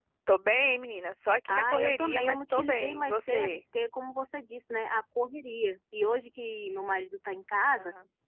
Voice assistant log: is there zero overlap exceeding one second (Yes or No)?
No